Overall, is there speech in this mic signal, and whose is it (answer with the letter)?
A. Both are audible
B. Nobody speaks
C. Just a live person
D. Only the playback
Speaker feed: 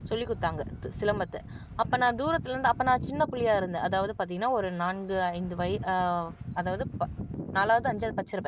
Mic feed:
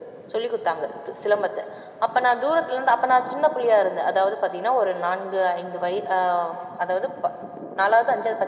D